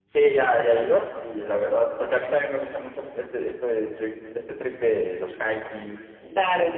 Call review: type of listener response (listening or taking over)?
listening